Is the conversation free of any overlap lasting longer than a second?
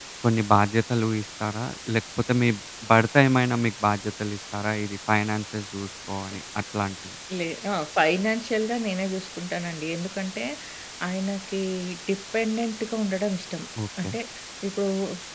Yes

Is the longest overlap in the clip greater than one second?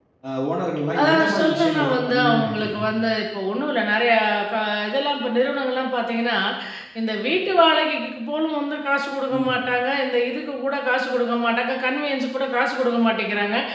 Yes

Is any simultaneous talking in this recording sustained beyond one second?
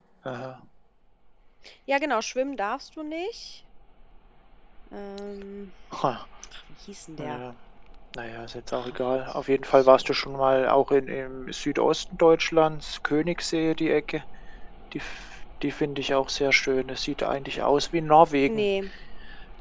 No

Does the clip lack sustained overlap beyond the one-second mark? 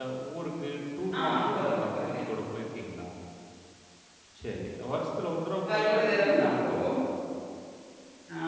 No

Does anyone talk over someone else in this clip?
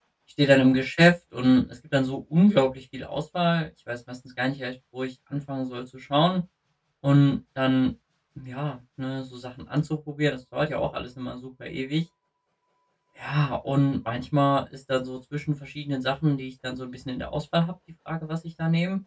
No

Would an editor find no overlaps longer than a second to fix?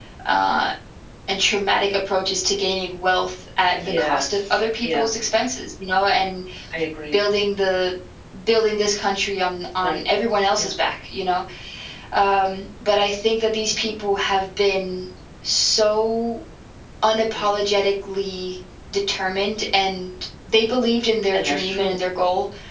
No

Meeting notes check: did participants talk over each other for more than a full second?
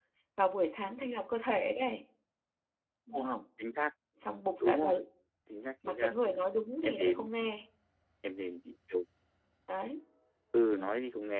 No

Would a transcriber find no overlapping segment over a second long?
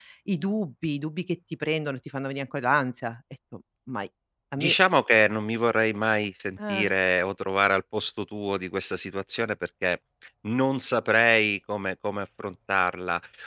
Yes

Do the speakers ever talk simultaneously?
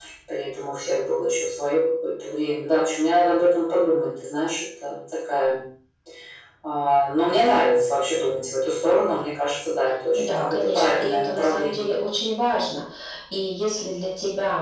Yes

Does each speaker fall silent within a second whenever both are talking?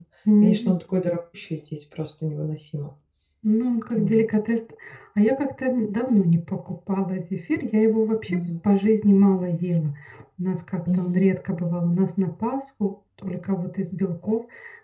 Yes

